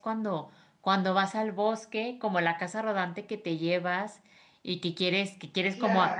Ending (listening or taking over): listening